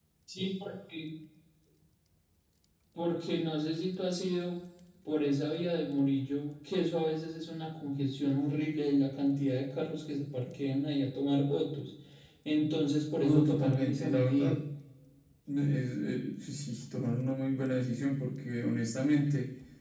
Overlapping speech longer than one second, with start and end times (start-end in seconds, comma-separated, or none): 13.2-14.6